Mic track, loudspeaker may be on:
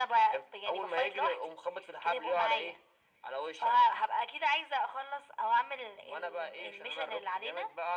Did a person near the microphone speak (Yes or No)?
No